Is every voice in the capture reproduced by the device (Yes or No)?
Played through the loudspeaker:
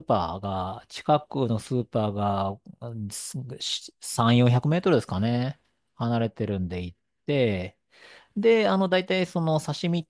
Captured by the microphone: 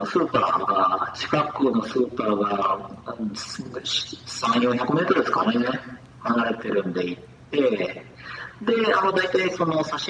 Yes